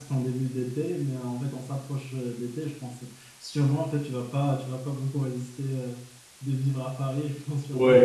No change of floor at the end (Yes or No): No